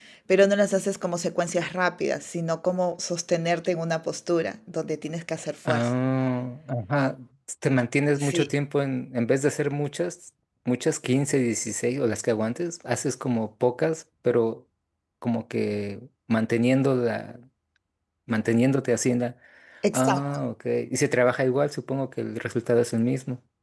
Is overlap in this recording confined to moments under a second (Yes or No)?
Yes